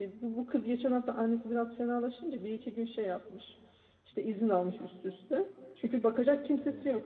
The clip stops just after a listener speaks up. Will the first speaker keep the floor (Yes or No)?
Yes